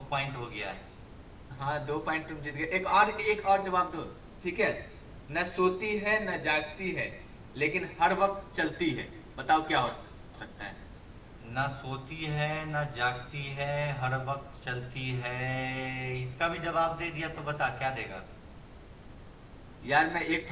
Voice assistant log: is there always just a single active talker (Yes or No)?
Yes